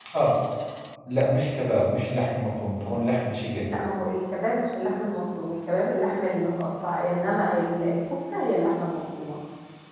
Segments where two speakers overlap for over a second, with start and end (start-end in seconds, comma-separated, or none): none